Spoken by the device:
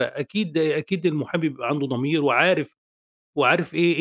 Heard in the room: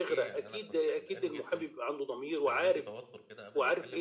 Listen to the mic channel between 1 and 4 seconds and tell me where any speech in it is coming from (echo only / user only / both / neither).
both